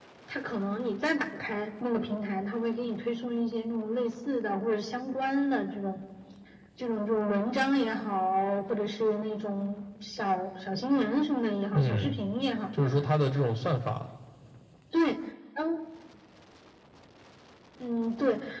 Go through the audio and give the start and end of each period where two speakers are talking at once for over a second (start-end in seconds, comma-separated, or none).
none